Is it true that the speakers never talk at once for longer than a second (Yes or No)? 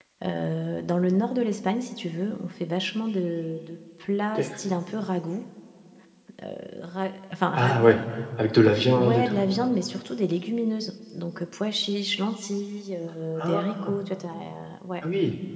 Yes